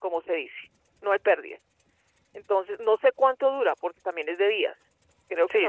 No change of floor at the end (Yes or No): No